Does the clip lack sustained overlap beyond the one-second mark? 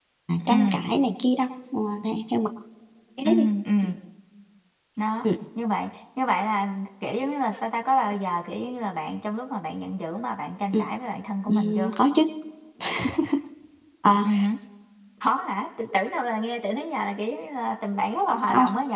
Yes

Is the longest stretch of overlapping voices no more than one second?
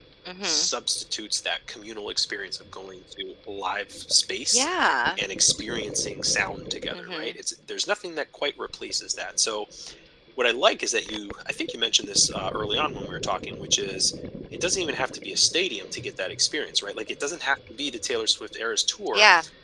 Yes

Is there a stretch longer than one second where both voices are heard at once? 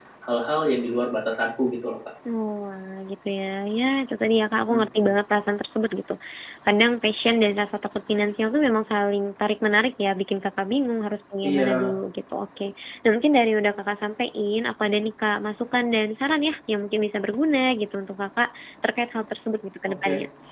No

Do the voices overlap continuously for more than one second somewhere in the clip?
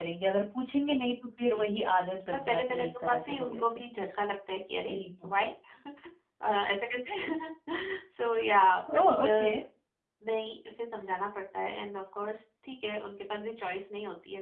Yes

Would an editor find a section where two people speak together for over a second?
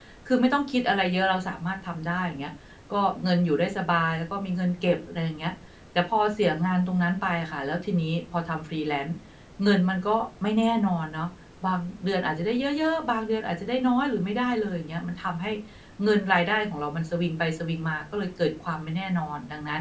No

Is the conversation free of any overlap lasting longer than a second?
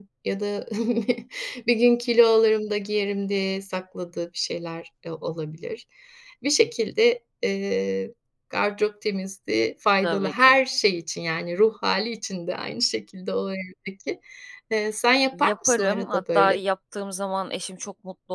No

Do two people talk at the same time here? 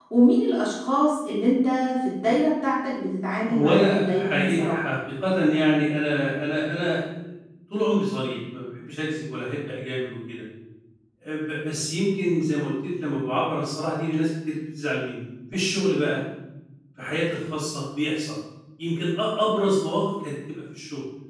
Yes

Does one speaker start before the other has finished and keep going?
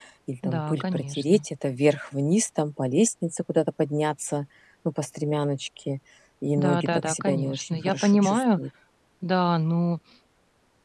Yes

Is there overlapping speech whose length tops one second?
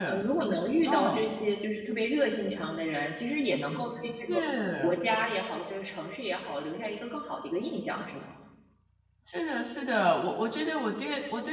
No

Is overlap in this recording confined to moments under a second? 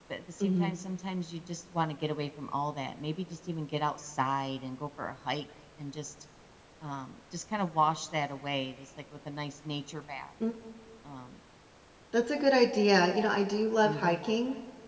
Yes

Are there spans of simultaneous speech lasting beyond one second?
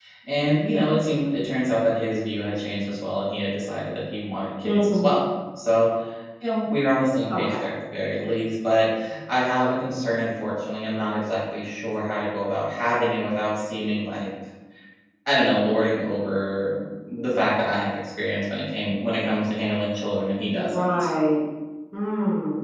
No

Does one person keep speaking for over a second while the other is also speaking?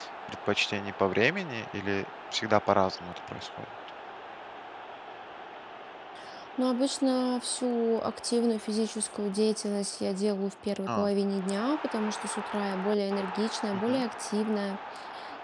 No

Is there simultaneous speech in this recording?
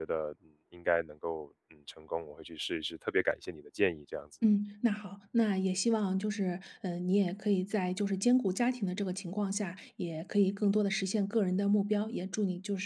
No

